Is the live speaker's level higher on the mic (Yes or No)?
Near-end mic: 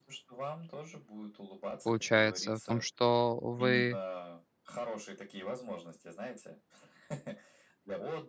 Yes